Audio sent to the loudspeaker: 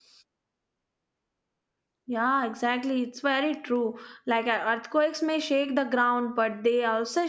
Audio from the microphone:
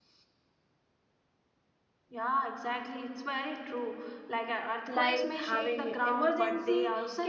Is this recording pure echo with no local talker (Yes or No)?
No